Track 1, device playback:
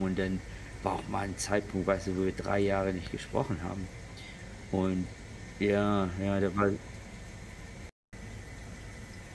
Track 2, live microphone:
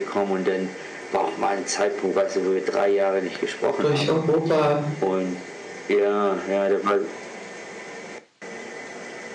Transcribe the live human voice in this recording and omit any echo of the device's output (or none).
durch Europa